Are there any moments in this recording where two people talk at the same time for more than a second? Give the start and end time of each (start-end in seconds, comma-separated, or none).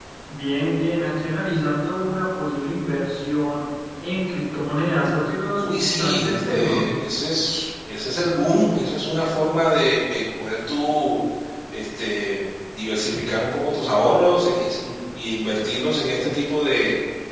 5.6-6.9